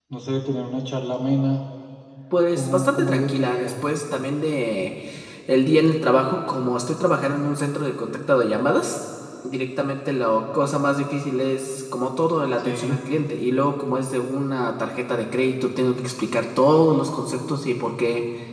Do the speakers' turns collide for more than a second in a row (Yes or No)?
Yes